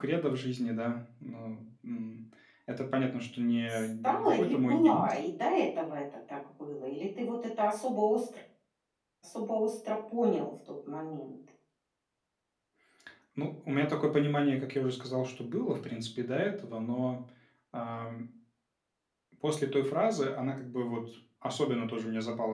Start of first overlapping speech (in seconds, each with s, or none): 3.7 s